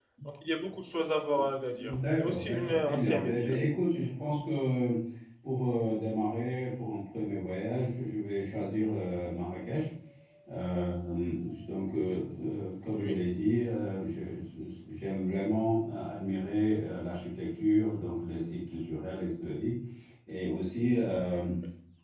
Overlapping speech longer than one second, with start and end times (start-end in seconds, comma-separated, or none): 1.8-3.6